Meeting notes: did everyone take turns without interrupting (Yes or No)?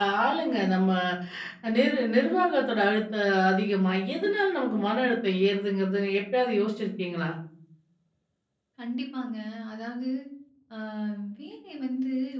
Yes